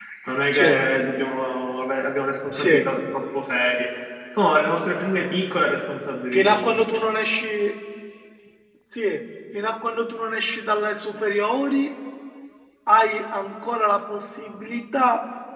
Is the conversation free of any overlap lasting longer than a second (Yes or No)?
Yes